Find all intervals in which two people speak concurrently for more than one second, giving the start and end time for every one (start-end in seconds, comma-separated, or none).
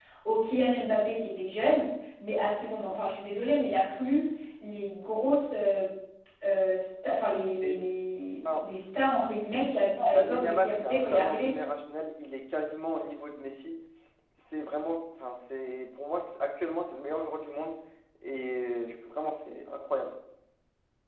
10.1-11.5